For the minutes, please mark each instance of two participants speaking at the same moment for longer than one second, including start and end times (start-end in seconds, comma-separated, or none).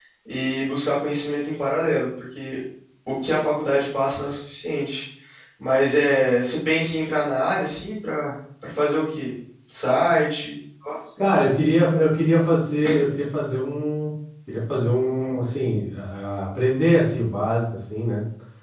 none